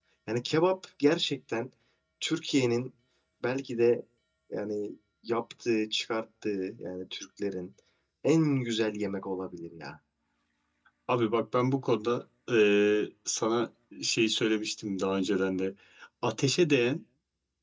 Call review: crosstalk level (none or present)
none